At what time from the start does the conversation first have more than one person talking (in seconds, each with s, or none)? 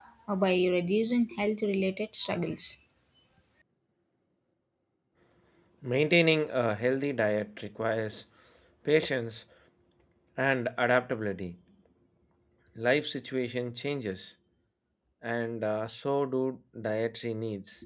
none